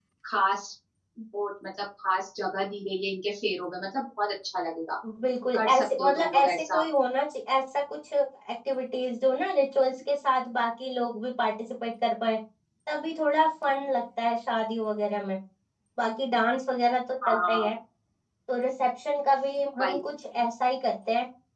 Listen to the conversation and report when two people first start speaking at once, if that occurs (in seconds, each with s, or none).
5.6 s